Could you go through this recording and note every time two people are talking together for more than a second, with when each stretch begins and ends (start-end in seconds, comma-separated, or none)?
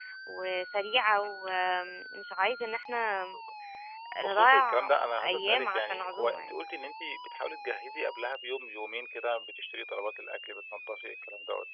4.2-6.5